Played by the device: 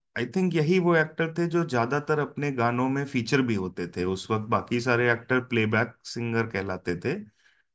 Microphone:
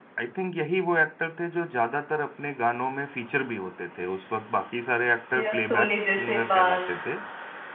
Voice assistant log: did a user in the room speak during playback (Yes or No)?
Yes